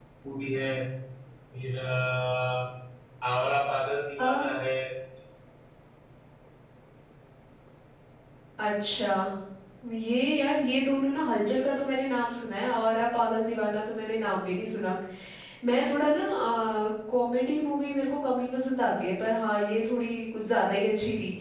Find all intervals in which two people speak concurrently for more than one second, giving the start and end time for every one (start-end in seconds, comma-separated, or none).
none